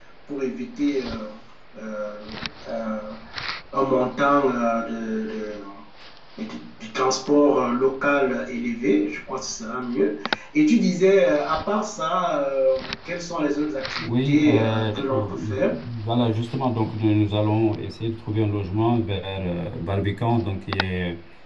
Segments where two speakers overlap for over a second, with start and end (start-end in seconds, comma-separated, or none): 14.0-15.8